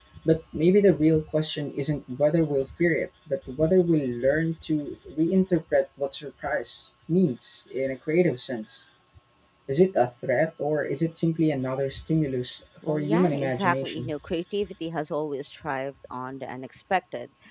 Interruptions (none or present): present